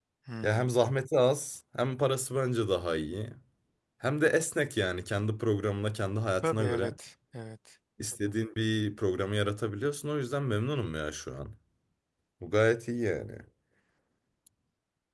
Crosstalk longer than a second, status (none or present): none